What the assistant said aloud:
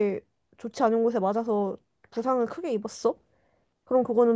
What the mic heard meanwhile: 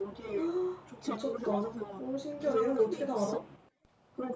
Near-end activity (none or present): present